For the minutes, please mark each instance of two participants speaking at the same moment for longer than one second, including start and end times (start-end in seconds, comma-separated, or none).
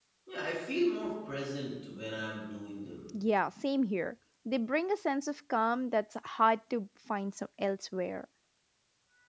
none